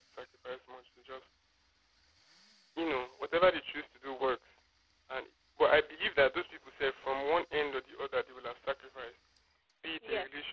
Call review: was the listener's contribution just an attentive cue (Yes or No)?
Yes